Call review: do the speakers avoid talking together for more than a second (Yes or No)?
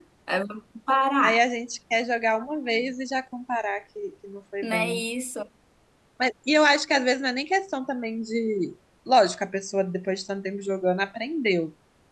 Yes